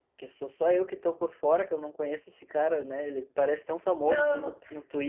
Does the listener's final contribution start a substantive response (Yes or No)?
No